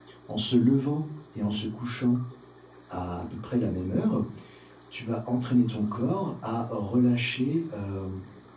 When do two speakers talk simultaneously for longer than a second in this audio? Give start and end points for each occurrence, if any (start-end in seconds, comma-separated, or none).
none